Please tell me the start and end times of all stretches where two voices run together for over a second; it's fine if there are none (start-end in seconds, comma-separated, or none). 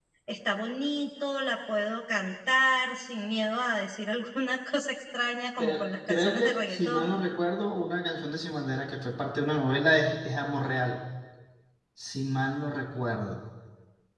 5.6-7.1